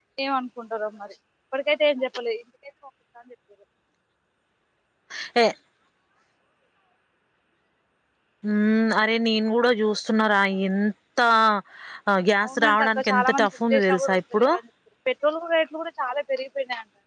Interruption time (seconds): 12 s

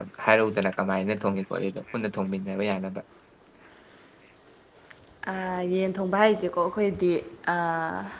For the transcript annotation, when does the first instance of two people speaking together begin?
none

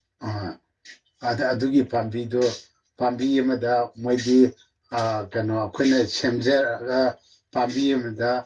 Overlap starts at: none

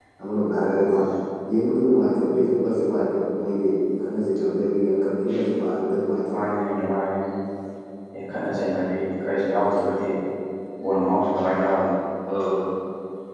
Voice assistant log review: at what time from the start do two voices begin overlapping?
none

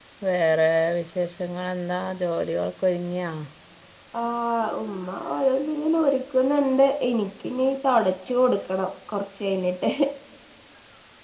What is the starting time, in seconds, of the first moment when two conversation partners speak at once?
none

